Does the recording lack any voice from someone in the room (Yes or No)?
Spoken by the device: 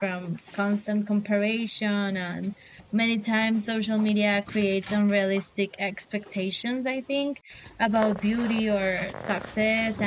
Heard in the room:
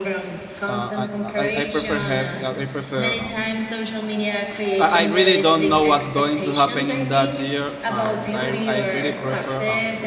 No